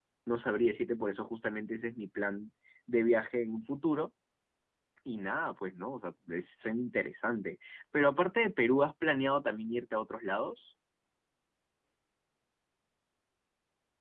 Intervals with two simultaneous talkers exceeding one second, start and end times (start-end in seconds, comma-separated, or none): none